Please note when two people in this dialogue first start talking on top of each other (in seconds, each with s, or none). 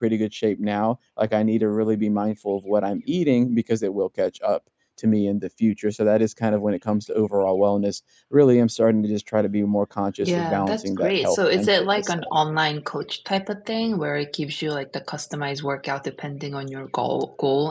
10.2 s